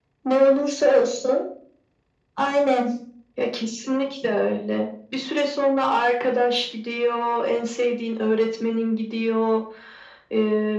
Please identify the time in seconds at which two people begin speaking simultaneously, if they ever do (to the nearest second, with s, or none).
none